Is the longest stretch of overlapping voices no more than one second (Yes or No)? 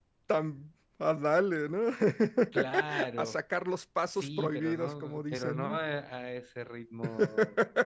No